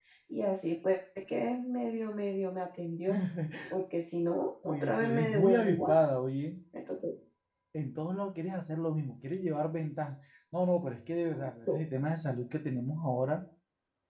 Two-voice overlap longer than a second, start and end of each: 4.6-6.0

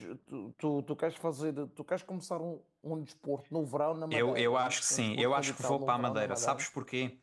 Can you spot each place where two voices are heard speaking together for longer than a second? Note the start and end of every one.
4.1-6.7

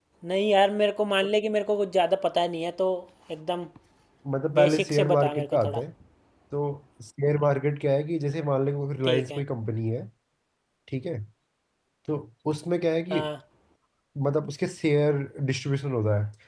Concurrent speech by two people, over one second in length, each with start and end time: 4.5-5.8

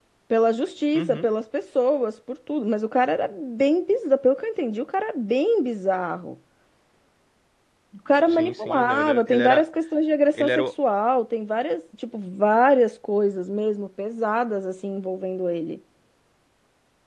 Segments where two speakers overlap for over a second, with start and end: 8.3-9.6

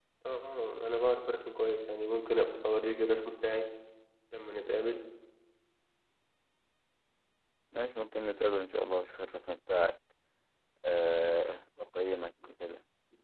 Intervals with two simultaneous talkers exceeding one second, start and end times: none

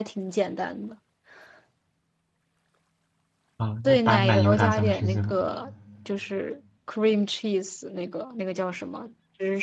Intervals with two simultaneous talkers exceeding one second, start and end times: 3.8-5.3

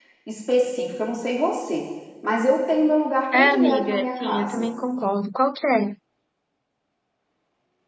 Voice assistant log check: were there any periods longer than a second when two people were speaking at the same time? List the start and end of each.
3.3-4.7

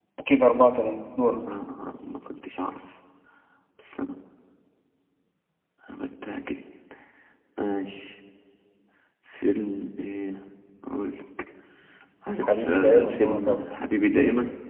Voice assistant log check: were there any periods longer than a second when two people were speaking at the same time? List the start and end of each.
12.4-13.6

